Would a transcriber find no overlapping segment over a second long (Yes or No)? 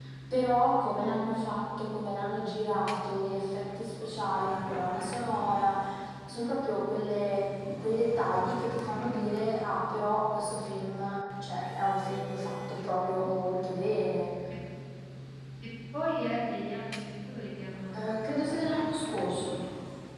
Yes